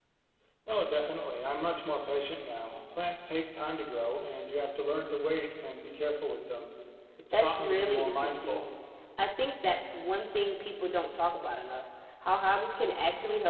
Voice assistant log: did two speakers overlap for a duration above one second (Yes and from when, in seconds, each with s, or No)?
Yes, from 7.3 s